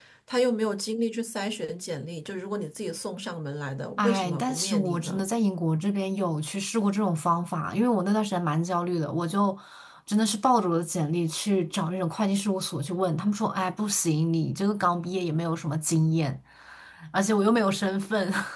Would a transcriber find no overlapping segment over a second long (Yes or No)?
No